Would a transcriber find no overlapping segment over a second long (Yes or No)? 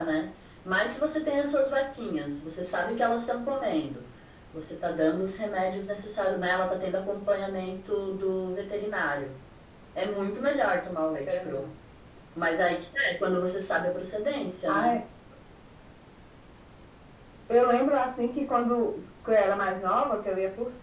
Yes